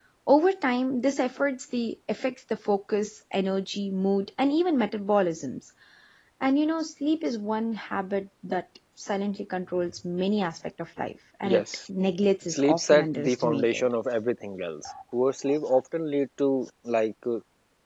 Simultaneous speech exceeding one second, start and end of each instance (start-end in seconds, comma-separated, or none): 12.5-13.9